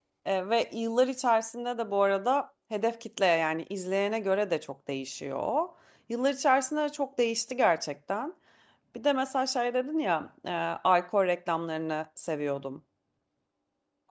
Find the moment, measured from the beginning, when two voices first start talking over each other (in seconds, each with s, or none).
none